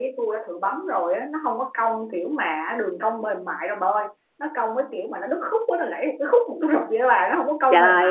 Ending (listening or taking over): taking over